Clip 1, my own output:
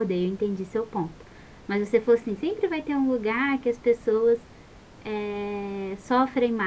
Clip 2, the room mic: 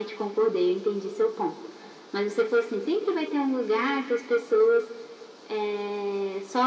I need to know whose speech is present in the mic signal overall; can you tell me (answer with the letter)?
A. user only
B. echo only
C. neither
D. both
B